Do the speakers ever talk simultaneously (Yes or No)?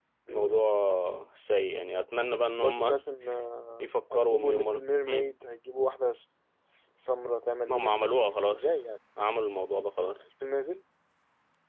Yes